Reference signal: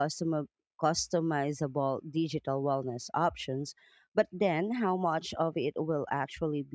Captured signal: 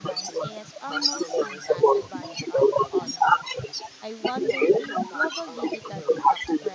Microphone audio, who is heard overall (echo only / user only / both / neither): both